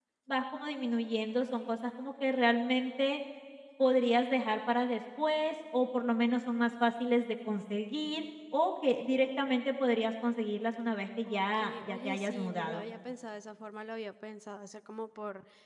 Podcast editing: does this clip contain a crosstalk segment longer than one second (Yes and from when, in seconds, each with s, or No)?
Yes, from 11.3 s